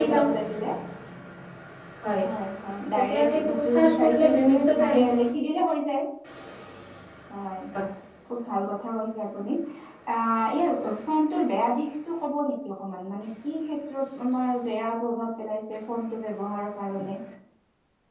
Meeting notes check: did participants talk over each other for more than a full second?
Yes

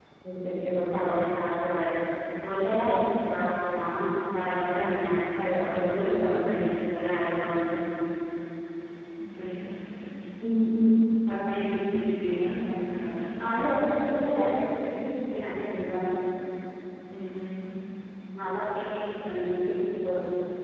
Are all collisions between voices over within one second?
Yes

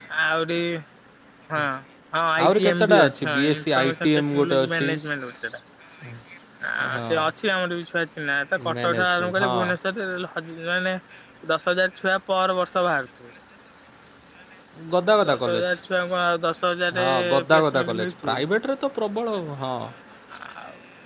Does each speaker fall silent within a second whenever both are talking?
No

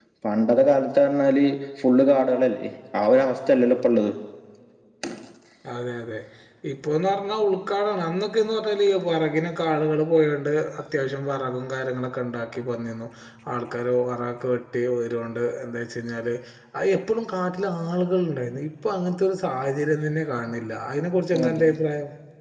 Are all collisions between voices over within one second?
Yes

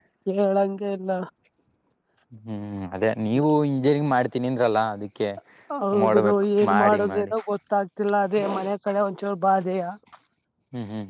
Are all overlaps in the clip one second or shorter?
No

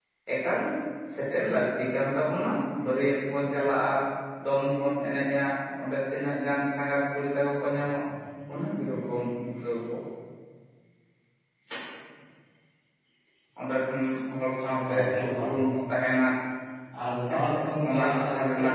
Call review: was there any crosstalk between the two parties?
Yes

